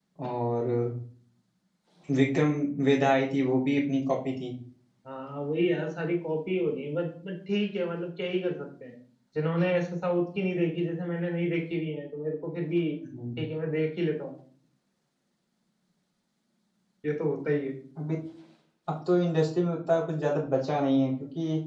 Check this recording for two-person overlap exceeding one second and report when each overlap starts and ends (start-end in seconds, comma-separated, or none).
none